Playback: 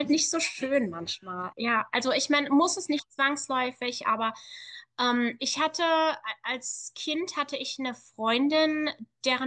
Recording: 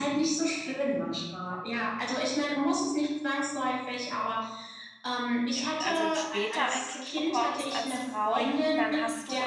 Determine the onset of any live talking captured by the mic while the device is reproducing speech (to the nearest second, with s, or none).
6 s